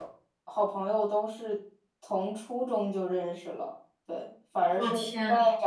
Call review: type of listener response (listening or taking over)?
listening